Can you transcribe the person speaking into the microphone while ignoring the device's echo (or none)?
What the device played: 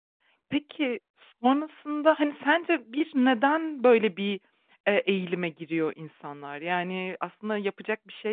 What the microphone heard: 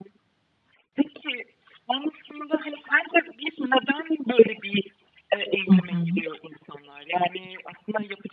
Hı hı.